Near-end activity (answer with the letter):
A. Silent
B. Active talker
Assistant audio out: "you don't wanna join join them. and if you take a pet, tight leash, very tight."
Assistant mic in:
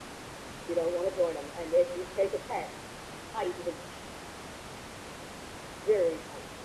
A